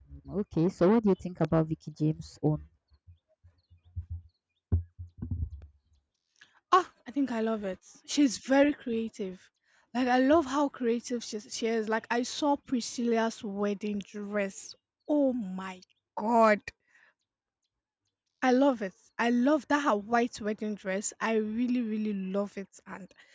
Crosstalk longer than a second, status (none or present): none